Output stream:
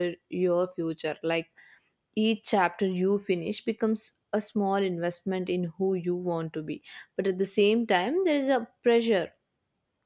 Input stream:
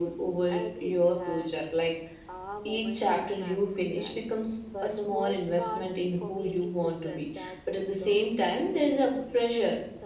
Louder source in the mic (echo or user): echo